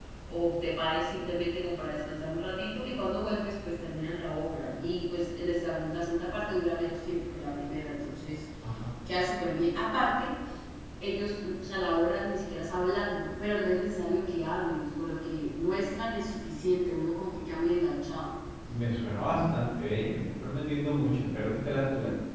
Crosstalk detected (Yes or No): No